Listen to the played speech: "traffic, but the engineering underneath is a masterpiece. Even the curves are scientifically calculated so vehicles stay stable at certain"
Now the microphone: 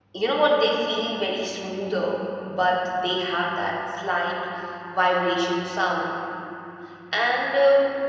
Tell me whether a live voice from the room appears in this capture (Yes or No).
Yes